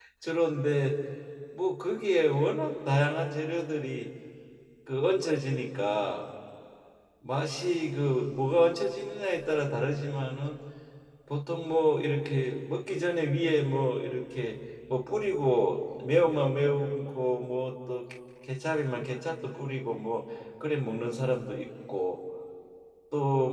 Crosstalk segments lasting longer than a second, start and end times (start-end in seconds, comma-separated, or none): none